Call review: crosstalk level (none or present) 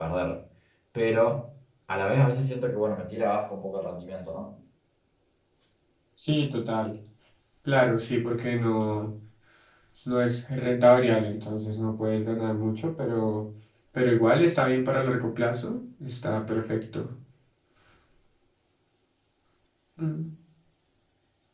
none